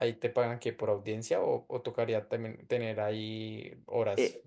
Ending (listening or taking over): taking over